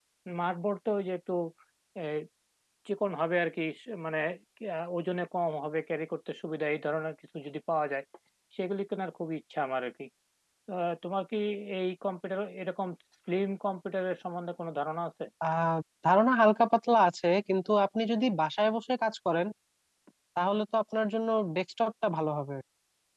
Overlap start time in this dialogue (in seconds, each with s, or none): none